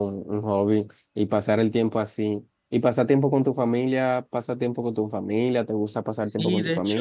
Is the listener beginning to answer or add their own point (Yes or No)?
Yes